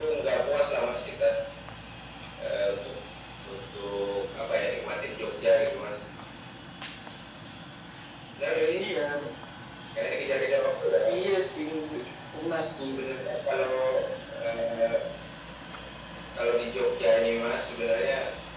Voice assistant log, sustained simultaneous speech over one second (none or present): none